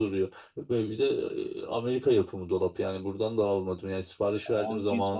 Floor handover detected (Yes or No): Yes